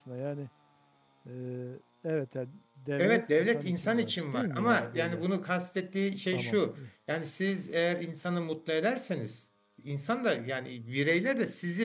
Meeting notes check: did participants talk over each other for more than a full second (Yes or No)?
Yes